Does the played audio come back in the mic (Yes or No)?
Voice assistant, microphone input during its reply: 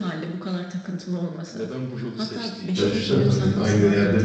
Yes